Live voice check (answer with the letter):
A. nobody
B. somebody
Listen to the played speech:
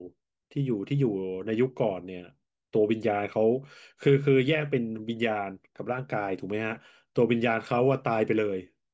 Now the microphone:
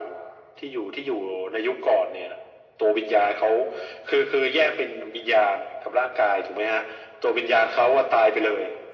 A